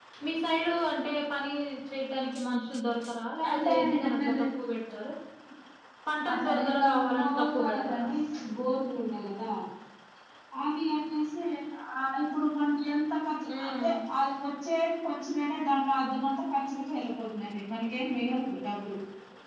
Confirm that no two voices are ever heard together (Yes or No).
No